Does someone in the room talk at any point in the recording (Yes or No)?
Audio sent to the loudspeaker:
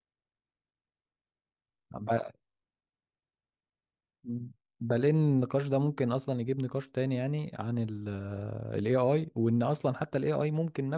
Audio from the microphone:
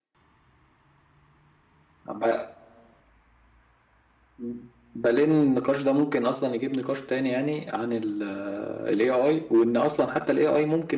No